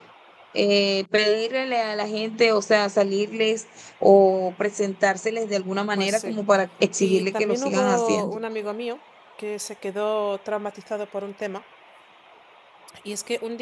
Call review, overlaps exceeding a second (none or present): present